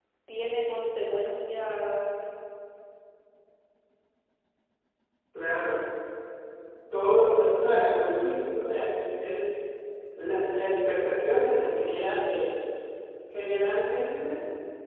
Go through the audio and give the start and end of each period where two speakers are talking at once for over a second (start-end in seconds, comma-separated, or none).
none